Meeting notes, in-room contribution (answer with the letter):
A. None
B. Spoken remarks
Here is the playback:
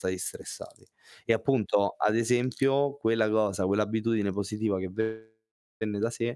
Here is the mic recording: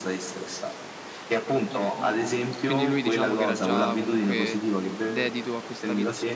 B